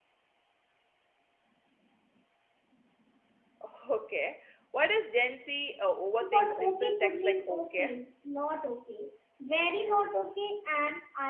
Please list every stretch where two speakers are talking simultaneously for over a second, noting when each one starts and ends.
6.2-7.9

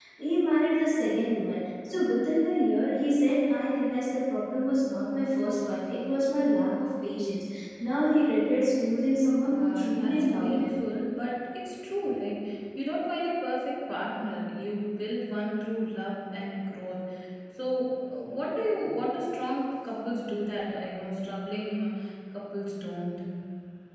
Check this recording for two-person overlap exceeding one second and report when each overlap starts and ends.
9.4-10.8

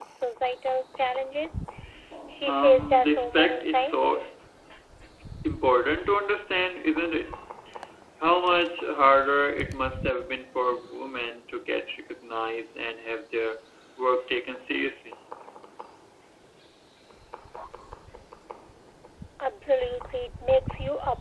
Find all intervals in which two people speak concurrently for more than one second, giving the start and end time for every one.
2.5-4.2

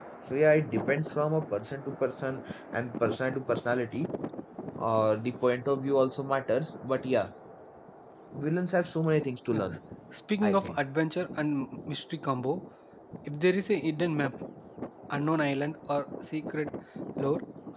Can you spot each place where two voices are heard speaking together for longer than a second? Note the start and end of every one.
none

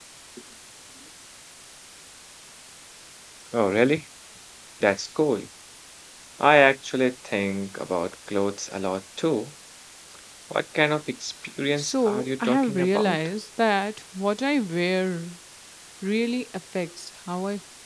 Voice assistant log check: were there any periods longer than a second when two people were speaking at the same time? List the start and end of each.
11.8-13.2

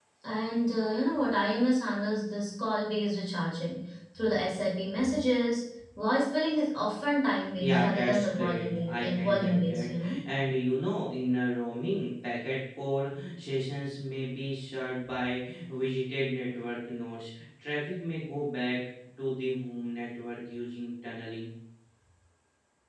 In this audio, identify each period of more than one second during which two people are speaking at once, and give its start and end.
7.6-10.2

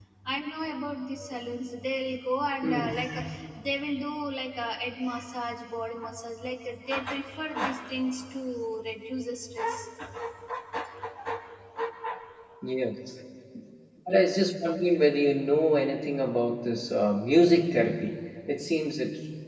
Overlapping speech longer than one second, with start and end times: none

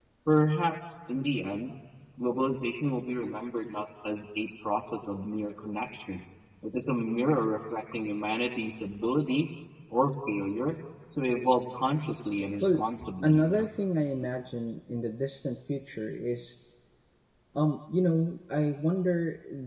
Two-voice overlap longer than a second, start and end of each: none

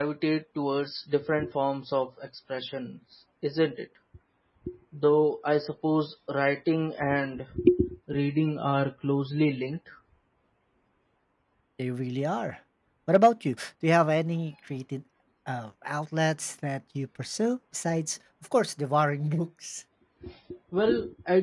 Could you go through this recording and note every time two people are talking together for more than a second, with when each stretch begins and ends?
none

